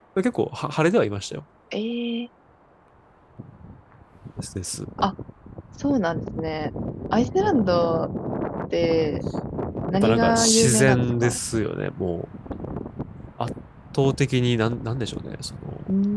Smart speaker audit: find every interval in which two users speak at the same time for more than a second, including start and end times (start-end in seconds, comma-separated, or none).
10.0-11.4